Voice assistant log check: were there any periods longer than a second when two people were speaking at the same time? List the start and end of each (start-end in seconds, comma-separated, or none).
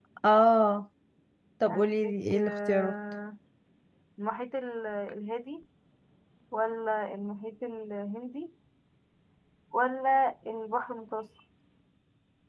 1.7-2.9